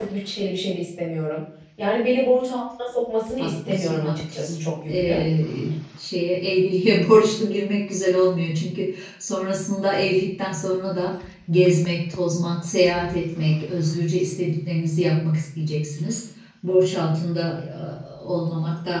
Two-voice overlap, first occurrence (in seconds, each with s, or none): 3.4 s